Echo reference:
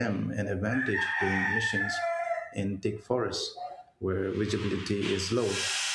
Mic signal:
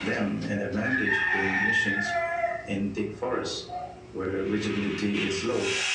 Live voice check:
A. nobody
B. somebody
A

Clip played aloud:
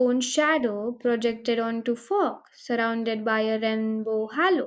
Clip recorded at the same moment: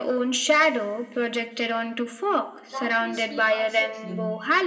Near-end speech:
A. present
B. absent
A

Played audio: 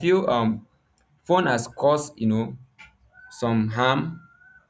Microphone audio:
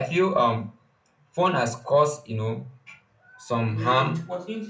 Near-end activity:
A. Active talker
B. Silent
A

